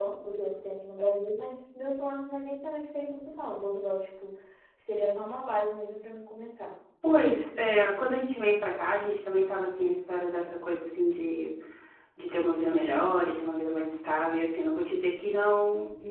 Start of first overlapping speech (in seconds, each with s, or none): none